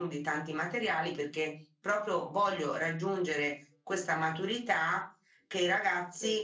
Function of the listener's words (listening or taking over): listening